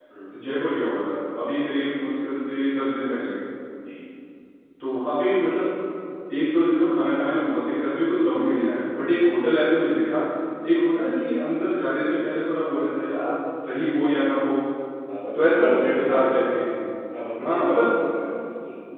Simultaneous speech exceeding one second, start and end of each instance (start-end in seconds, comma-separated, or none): 15.4-16.8